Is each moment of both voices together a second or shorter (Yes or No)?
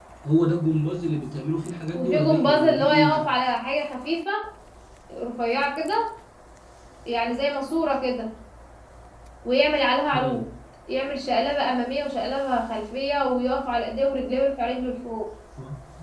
No